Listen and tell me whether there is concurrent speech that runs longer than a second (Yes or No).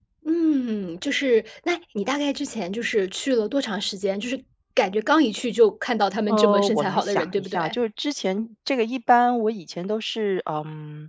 Yes